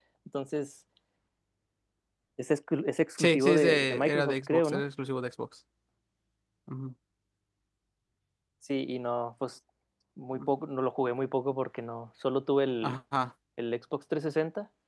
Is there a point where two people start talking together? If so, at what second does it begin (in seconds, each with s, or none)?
3.2 s